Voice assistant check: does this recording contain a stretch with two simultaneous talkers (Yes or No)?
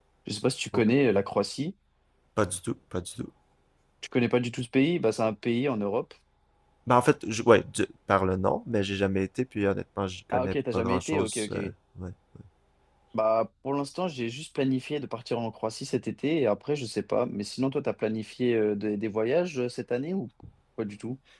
Yes